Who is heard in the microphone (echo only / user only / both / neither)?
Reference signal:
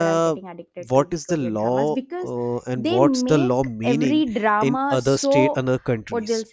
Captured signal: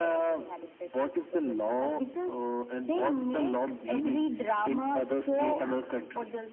both